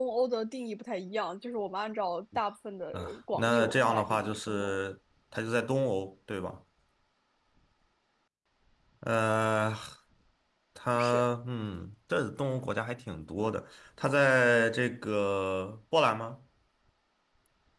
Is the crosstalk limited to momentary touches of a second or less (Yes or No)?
No